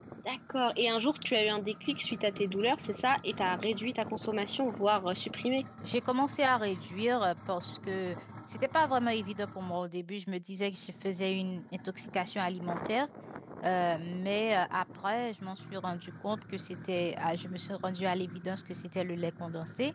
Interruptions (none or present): none